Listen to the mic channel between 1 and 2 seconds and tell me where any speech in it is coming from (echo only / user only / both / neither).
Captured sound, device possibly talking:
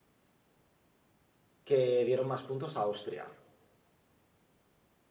user only